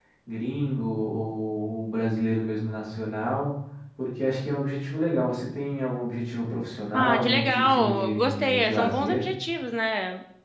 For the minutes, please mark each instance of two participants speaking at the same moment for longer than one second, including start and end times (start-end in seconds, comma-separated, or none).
6.9-9.2